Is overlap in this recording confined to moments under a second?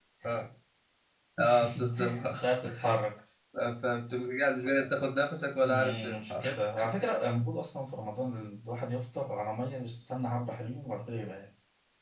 No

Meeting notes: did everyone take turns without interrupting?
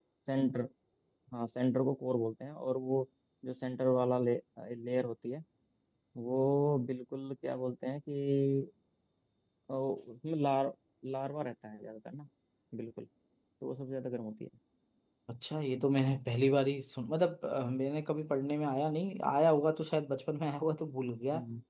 Yes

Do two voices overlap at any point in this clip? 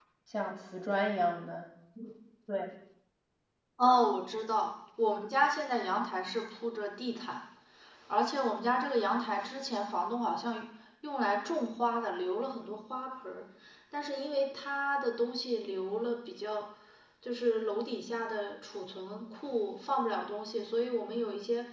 No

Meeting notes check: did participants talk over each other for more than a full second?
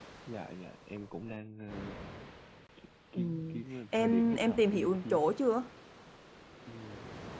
Yes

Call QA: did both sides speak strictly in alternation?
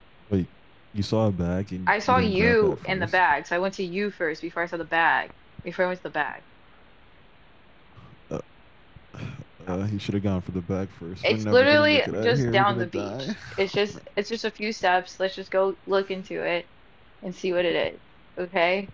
No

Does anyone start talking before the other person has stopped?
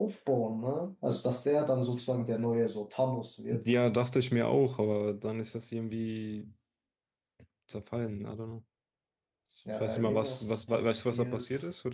Yes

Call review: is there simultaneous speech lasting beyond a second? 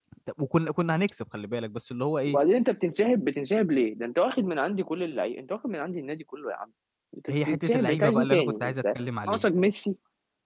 Yes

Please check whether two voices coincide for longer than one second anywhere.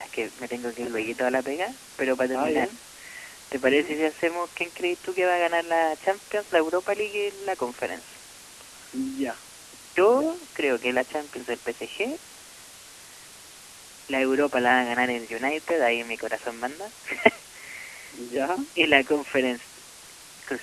No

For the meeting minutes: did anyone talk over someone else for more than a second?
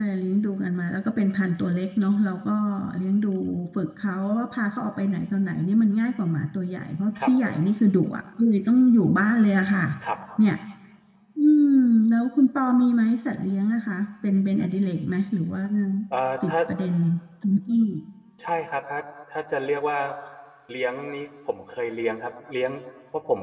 No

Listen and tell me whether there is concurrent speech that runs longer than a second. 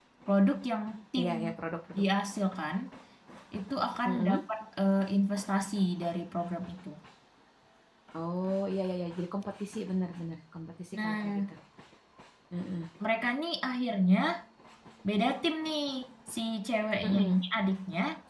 No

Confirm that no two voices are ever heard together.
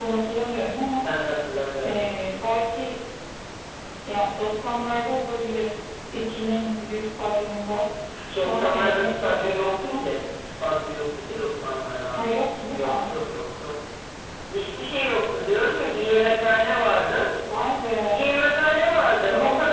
No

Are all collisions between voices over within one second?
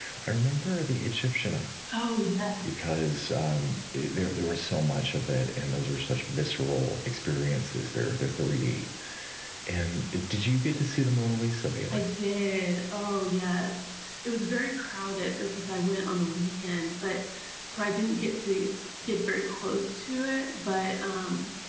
Yes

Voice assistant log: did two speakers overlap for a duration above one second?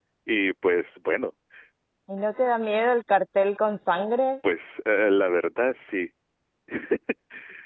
No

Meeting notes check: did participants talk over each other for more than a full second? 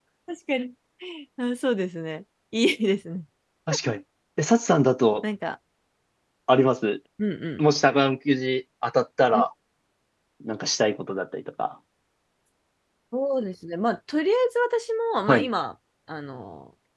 No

